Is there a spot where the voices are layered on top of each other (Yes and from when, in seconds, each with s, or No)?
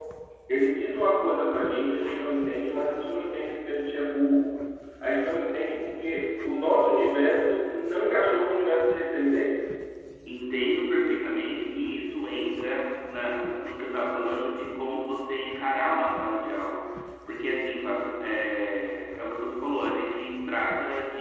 No